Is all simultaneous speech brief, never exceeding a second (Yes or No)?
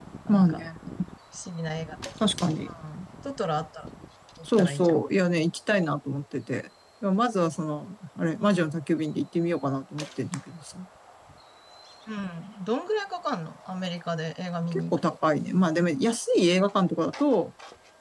Yes